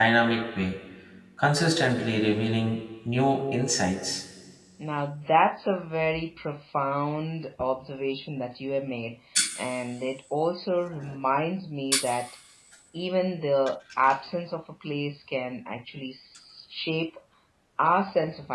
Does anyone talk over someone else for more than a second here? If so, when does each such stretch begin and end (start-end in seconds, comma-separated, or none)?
none